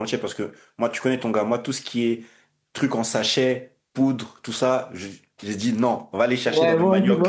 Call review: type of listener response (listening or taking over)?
taking over